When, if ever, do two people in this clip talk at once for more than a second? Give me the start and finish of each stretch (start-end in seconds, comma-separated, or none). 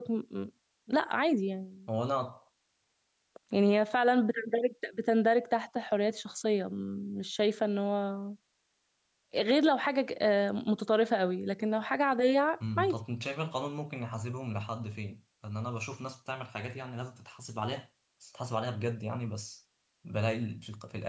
none